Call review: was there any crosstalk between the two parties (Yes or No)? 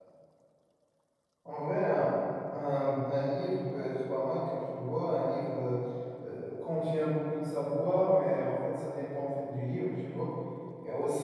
No